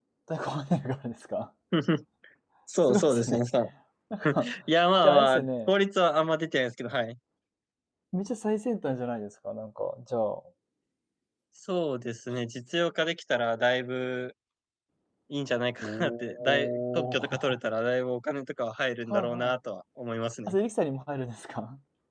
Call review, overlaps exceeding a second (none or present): present